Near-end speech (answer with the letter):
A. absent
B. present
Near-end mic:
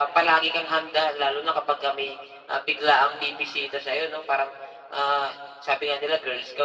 A